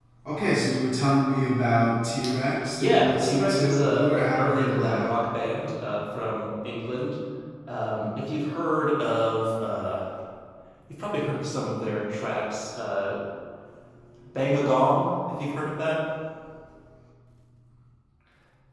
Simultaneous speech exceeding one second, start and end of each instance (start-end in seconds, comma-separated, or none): 2.8-5.1